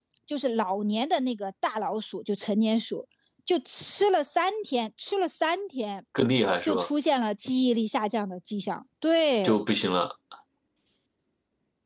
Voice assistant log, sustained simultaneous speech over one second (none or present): none